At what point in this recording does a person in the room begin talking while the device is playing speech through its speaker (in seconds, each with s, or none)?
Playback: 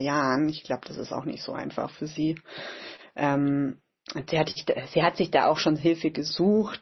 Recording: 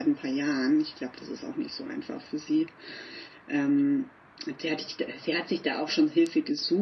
none